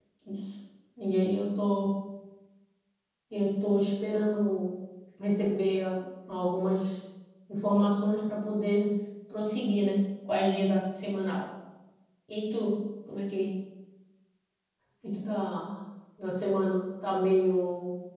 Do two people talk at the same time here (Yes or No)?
No